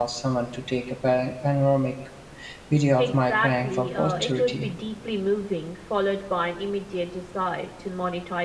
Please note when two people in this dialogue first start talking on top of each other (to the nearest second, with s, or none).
3 s